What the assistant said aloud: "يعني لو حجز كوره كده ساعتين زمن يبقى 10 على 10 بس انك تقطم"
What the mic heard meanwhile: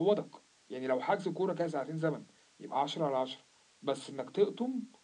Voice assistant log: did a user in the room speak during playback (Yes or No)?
No